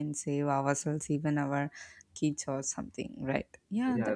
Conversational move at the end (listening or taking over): taking over